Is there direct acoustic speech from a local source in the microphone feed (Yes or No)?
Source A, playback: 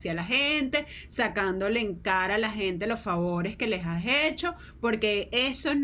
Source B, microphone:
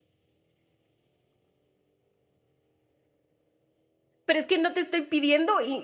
Yes